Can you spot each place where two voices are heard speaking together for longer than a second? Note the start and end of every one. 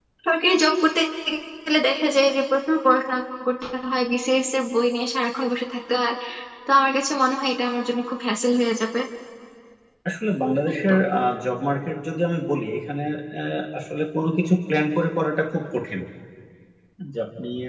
none

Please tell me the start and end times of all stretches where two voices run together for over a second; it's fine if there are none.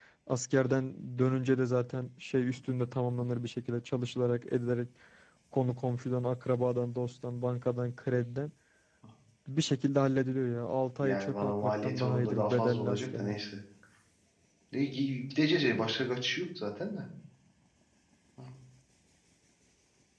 11.0-13.4

